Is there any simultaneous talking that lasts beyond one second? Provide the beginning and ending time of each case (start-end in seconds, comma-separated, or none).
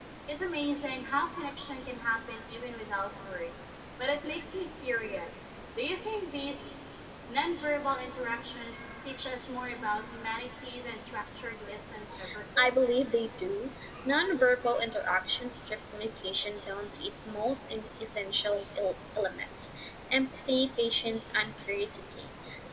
none